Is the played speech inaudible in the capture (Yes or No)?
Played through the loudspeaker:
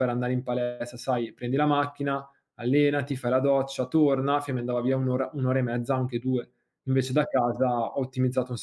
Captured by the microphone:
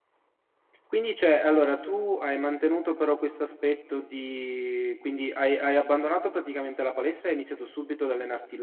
Yes